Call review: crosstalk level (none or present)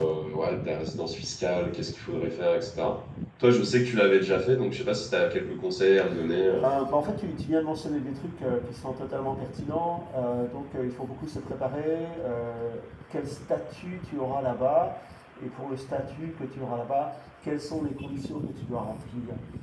none